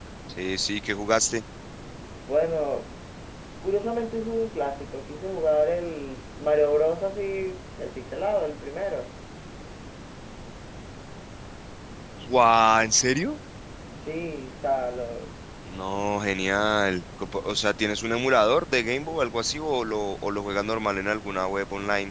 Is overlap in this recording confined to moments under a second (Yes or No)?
Yes